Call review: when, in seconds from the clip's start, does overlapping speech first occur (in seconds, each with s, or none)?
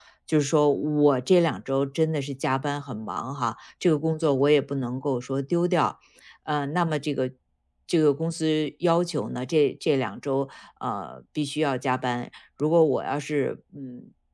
none